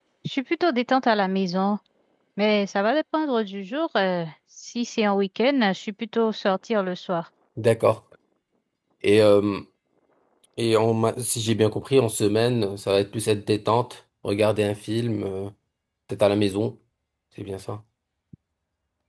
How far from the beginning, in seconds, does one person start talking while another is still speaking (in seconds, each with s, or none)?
none